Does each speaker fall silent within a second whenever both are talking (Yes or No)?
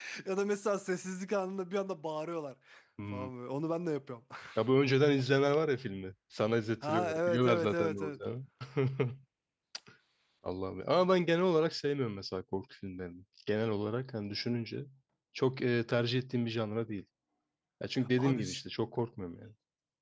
No